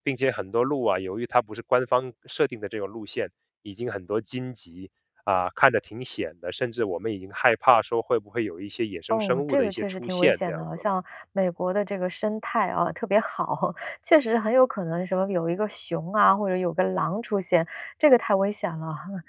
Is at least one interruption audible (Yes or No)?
Yes